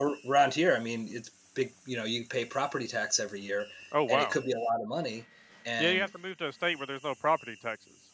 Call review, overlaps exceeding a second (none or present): none